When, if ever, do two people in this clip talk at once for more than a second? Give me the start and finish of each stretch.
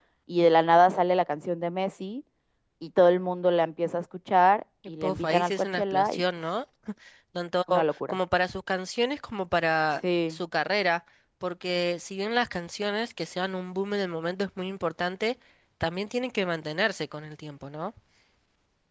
5.0-6.2

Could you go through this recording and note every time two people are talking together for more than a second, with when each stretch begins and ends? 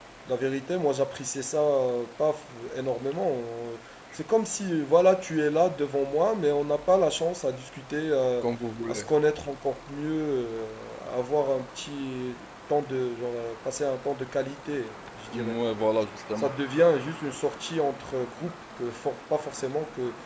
none

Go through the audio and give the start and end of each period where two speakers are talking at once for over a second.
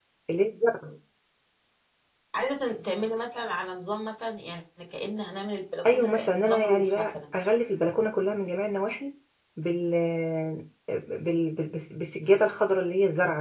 5.9-7.3

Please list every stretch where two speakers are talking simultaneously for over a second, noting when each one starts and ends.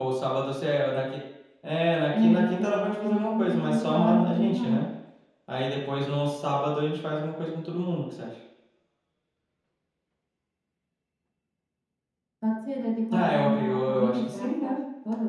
2.2-4.8, 13.1-14.8

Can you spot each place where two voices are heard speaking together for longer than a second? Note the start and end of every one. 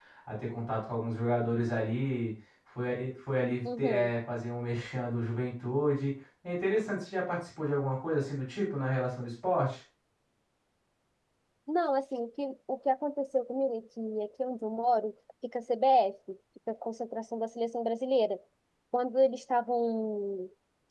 none

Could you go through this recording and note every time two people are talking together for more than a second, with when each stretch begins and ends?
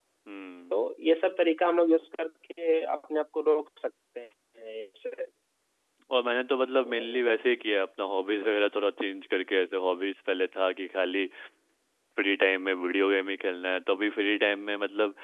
none

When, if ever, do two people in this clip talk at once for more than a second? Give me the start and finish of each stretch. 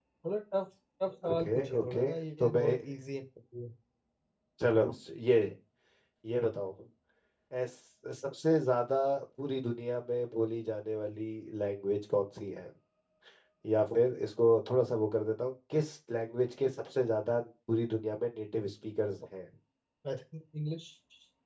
1.3-2.6

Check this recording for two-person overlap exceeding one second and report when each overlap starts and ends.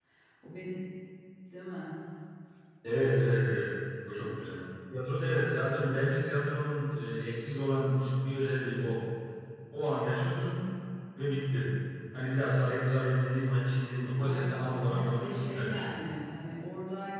14.2-15.9

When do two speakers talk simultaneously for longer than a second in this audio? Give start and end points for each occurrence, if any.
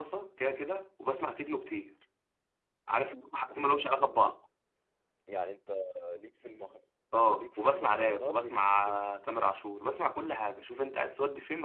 7.3-9.1

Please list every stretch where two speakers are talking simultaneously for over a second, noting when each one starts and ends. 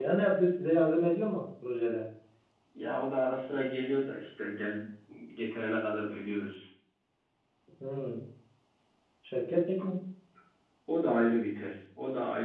none

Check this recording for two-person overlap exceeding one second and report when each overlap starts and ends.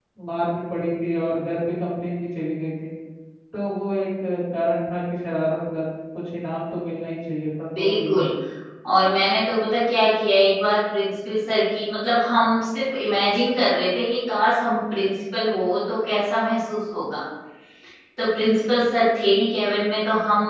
none

